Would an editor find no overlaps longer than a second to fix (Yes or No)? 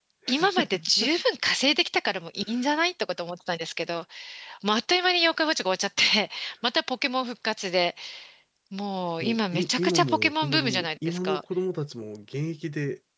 No